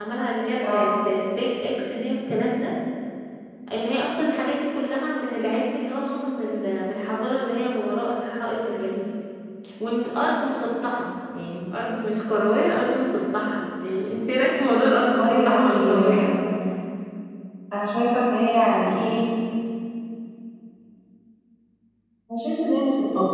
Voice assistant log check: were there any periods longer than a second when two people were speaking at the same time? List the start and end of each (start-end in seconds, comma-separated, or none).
15.1-16.4